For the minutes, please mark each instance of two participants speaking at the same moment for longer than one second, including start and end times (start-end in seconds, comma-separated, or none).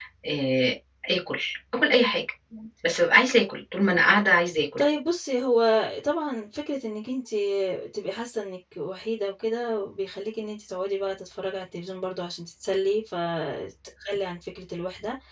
none